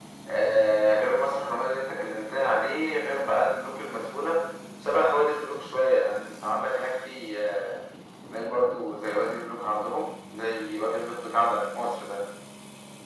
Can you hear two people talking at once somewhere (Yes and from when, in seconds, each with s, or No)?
No